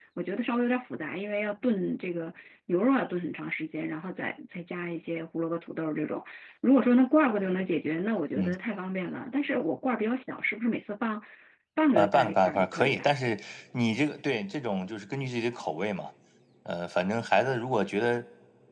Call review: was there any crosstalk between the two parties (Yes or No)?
Yes